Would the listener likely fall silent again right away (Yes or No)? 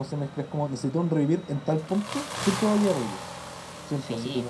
Yes